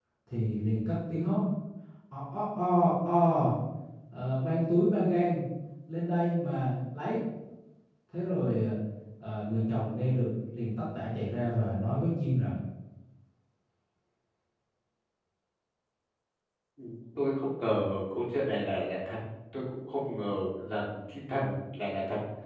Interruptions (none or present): none